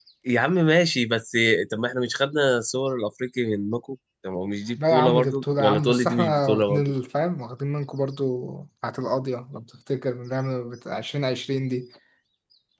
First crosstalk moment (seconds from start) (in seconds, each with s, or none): 4.8 s